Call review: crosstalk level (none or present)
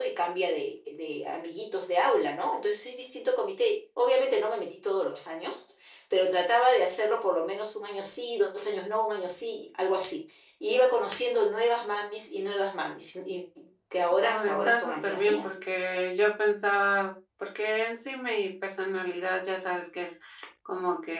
present